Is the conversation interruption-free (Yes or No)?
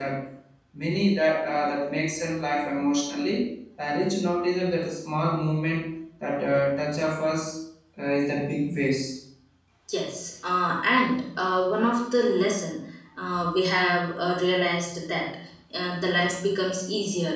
Yes